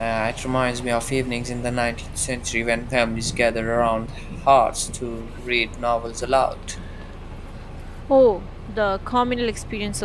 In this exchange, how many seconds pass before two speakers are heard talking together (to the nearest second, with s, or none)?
none